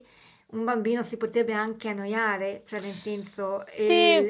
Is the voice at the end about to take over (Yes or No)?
No